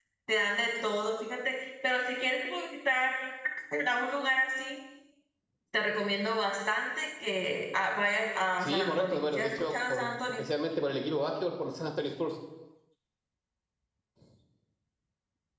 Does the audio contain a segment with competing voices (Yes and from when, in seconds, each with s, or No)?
Yes, from 8.6 s